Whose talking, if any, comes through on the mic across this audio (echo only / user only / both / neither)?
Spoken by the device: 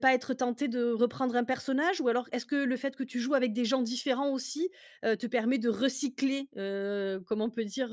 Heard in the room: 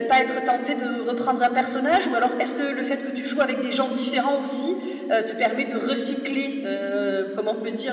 echo only